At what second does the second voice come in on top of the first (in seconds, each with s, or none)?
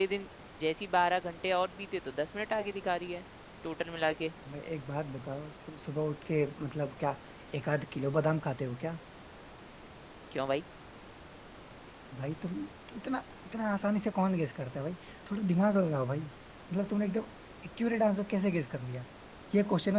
none